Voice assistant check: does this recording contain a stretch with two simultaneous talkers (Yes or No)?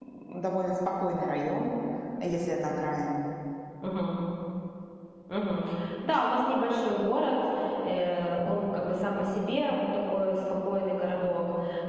No